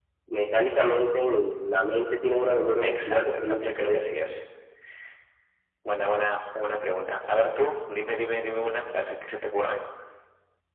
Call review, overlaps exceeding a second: present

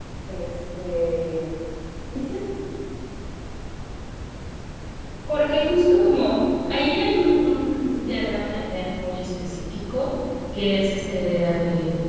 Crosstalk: none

